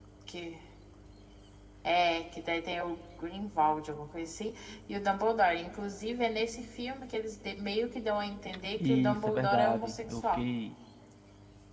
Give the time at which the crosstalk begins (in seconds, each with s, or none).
8.8 s